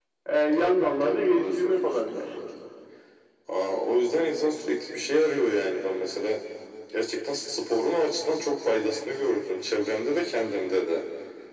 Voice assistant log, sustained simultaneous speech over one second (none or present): present